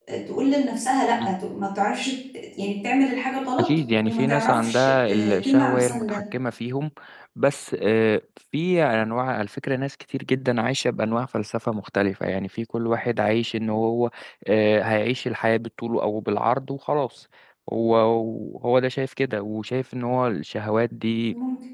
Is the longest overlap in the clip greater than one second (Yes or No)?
Yes